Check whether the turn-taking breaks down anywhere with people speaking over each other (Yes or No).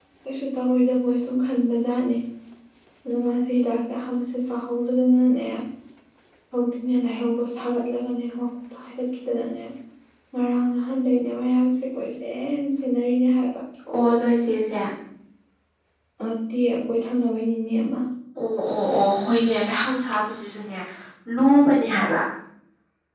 No